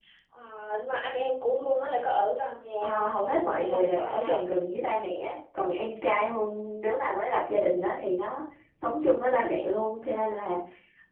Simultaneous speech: Yes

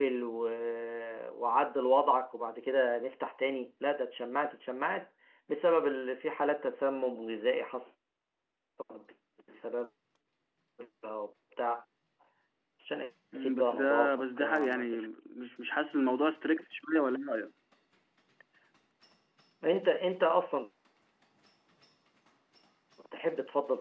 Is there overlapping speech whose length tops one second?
Yes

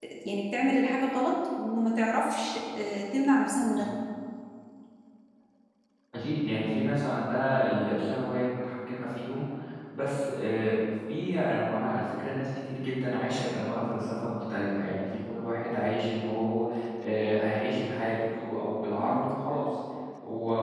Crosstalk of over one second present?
No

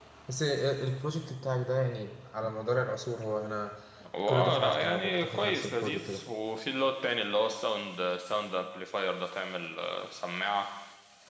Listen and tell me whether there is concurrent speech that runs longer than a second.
Yes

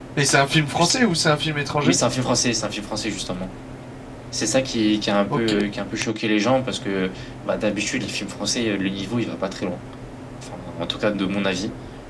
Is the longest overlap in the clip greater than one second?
No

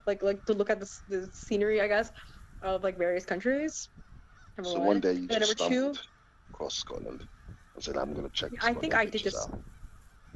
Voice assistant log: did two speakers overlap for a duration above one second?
Yes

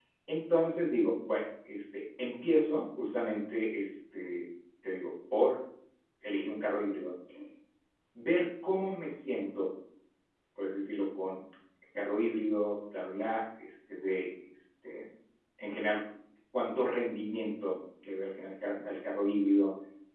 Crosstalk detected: No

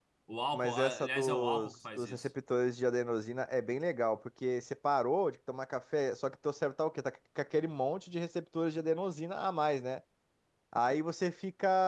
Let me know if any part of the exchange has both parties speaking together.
Yes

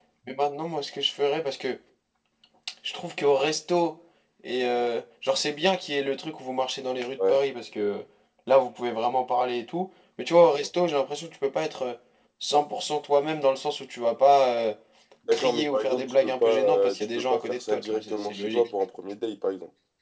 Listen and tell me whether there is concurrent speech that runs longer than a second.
Yes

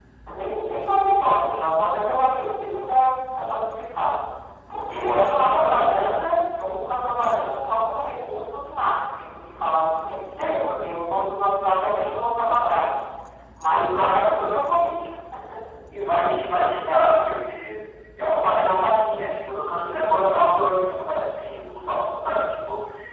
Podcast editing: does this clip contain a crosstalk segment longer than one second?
Yes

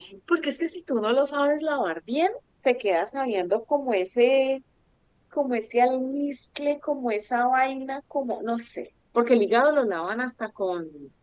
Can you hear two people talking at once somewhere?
No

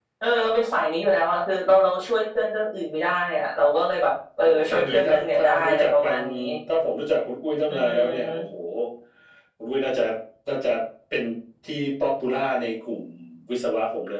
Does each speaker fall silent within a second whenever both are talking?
No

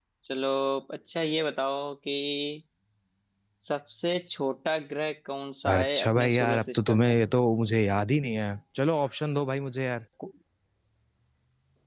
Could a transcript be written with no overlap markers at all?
No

